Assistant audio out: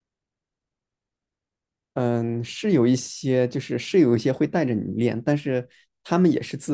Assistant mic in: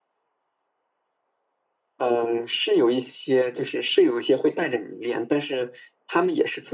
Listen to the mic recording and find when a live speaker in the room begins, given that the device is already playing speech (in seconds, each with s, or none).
none